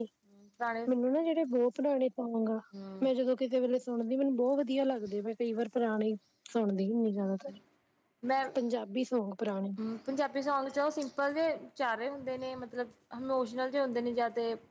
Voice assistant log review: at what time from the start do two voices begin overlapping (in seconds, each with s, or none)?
none